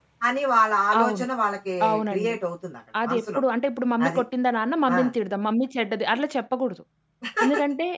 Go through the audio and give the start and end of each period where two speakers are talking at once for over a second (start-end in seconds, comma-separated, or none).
none